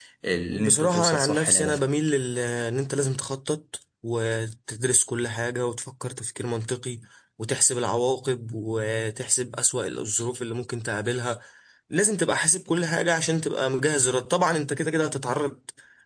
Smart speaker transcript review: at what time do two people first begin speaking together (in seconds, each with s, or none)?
0.5 s